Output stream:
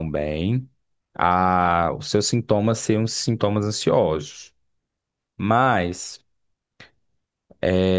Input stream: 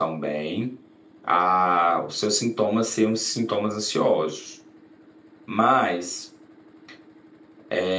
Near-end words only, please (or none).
none